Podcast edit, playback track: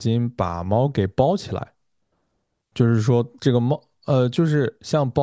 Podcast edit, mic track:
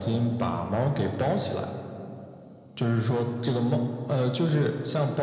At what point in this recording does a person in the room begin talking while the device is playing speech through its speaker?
none

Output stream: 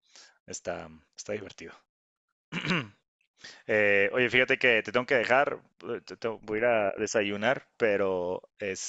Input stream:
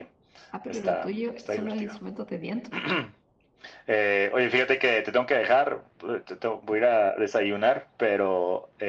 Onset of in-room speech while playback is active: 0.5 s

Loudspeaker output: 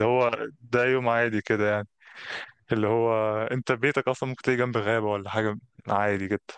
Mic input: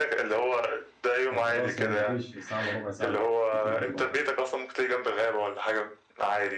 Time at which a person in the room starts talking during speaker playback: 1.3 s

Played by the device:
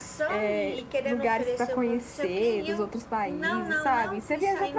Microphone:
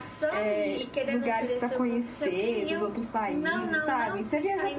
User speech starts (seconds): none

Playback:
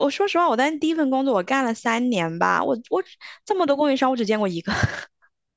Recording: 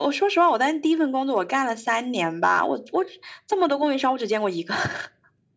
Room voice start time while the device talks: none

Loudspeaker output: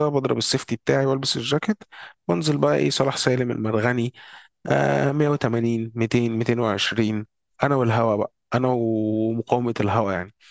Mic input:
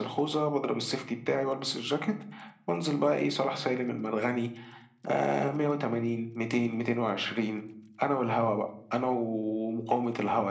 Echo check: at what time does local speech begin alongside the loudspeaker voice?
none

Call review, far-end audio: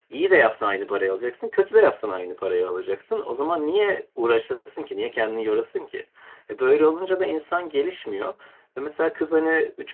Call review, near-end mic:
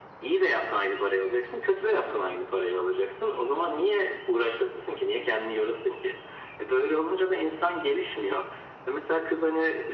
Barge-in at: none

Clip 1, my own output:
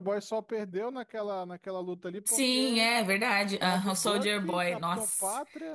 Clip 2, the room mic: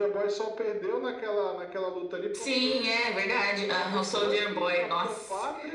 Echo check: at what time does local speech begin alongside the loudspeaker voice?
none

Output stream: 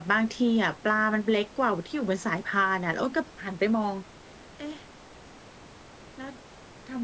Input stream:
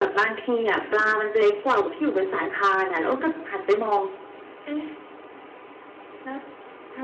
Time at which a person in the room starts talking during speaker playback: 0.7 s

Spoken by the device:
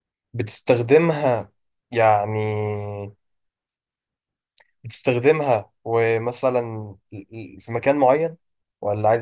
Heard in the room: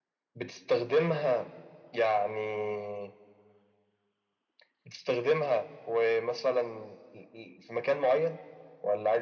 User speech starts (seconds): none

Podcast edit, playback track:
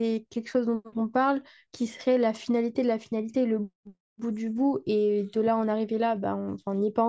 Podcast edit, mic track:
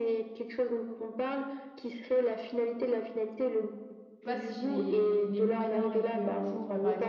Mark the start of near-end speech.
4.2 s

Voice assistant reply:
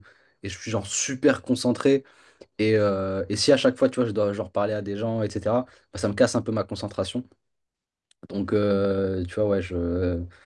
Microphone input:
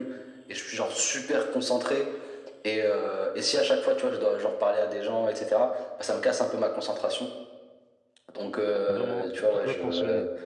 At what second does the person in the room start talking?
8.9 s

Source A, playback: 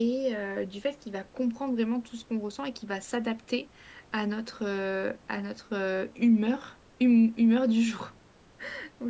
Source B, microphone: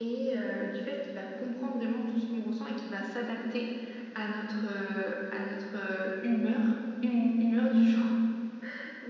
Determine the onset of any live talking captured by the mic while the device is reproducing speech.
none

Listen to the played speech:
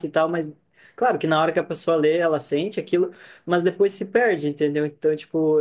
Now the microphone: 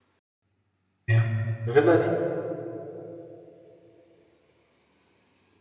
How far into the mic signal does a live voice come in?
1.1 s

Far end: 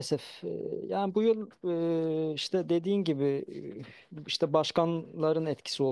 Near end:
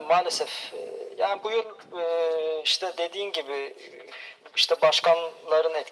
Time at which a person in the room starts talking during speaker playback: none

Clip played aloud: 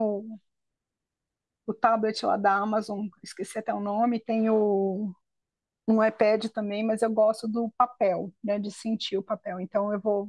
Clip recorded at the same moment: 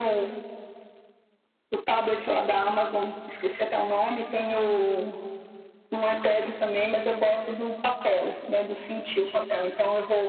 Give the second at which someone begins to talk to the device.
none

